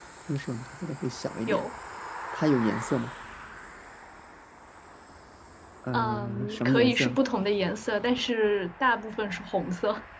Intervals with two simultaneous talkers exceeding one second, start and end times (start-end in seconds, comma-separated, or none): 5.9-7.2